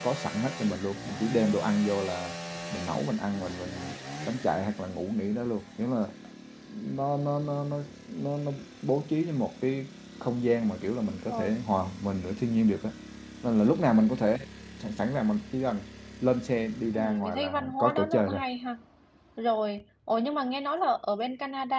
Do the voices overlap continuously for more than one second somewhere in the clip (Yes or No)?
Yes